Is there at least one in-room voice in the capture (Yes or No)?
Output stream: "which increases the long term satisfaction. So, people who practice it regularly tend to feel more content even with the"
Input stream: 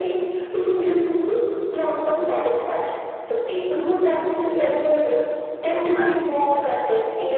Yes